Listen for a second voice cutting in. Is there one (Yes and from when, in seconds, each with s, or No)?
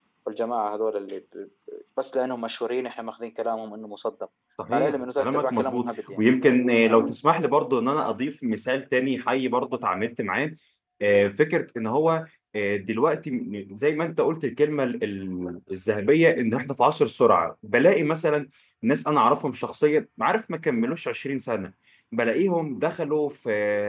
Yes, from 4.7 s